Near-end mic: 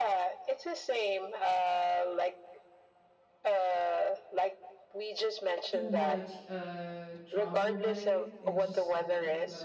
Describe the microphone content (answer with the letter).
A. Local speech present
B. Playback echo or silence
A